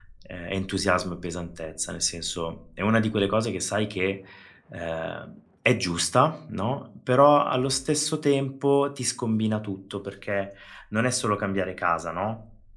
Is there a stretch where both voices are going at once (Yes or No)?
No